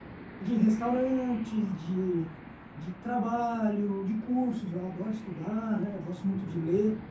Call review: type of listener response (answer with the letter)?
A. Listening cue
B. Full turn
A